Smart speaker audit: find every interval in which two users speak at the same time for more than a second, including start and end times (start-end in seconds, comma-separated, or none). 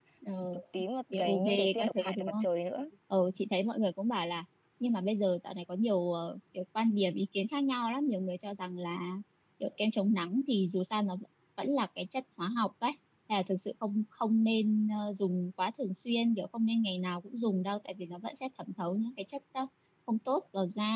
1.1-2.5